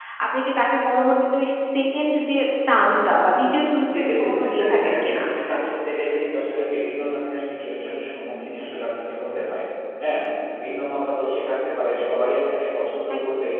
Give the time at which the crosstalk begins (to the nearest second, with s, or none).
4 s